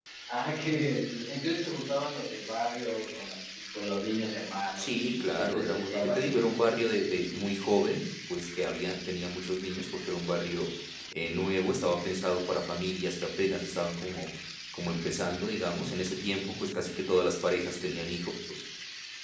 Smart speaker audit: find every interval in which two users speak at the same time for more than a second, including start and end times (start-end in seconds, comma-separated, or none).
4.8-6.6